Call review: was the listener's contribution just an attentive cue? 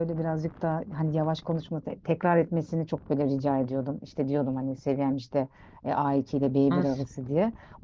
Yes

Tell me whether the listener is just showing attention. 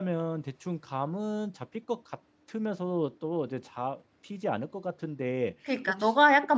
No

